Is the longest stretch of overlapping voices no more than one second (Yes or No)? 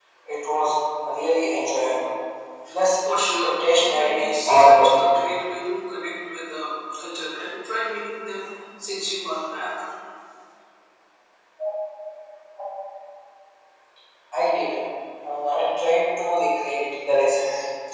No